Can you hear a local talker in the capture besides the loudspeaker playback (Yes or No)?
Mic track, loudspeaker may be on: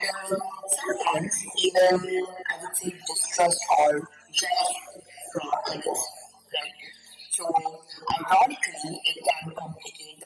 No